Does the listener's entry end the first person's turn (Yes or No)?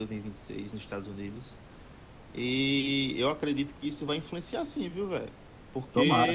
No